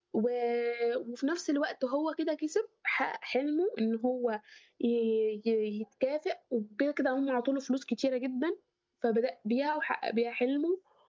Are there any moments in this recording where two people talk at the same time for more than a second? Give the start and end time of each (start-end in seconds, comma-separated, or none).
none